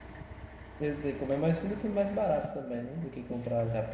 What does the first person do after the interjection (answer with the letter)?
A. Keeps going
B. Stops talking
B